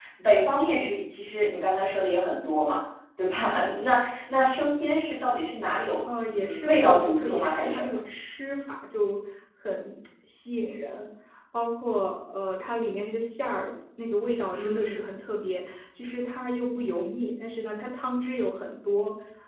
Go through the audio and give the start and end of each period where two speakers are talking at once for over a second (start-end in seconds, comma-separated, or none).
6.3-7.8